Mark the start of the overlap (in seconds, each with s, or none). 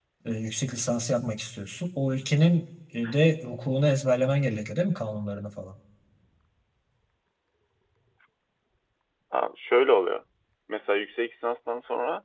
none